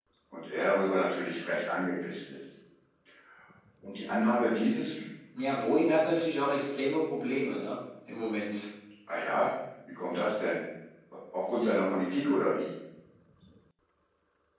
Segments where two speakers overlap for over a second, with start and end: none

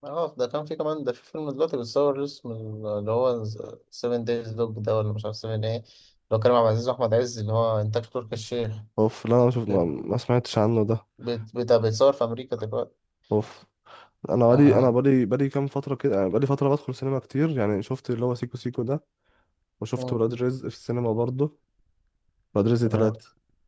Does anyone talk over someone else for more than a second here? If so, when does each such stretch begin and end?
none

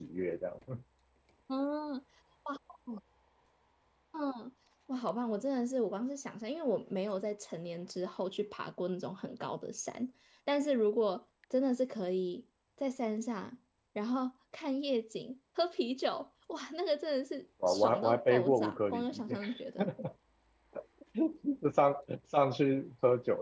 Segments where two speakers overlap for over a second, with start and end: 17.7-19.4

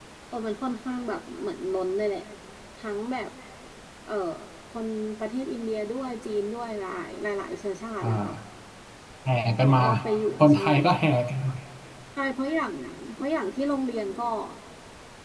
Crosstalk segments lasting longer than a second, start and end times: none

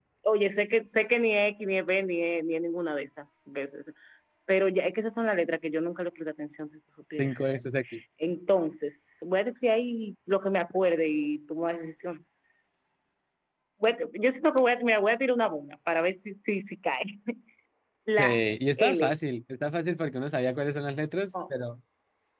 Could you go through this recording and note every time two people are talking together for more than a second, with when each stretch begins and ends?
none

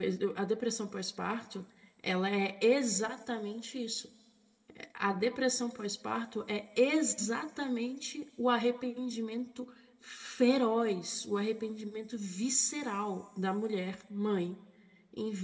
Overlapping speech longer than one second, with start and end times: none

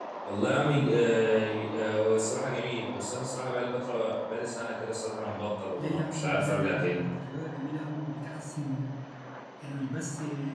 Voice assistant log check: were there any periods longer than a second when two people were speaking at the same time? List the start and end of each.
5.8-7.0

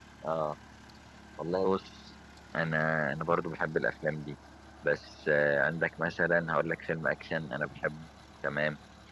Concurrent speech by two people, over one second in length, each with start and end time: none

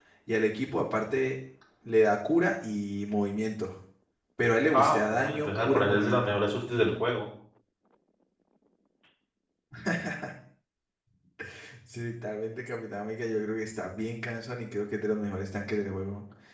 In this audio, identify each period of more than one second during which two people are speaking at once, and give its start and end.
4.7-6.3

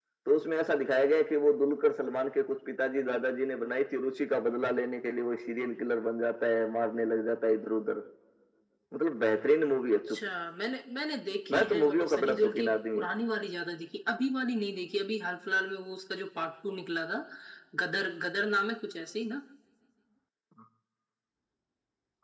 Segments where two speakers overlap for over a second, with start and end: 11.5-13.1

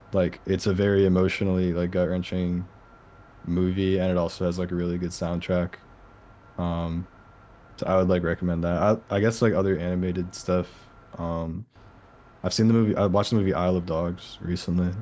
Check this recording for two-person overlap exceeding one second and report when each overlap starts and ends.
none

